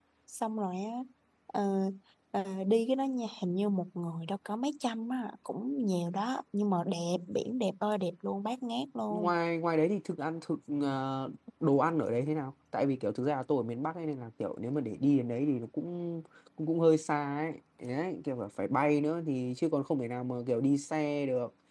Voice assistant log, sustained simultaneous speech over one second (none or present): none